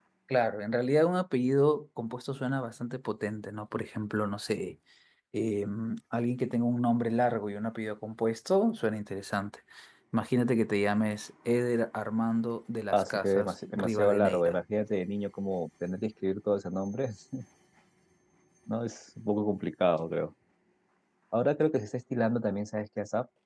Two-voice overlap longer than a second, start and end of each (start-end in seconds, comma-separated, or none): 12.9-14.6